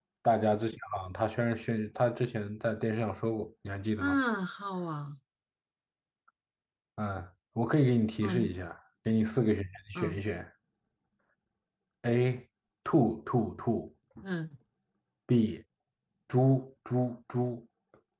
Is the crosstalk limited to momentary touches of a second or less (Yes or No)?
Yes